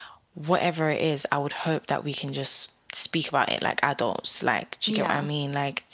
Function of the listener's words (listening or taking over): listening